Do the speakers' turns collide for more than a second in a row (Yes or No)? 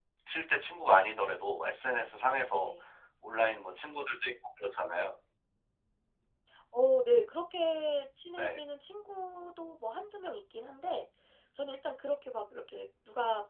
No